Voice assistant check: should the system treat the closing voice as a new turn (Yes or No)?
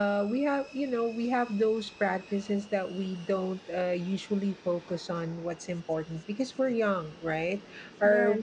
No